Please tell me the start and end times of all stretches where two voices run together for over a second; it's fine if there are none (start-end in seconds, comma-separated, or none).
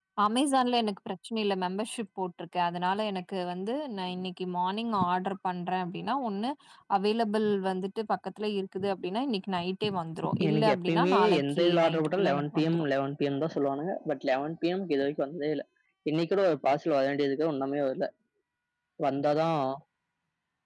10.5-12.8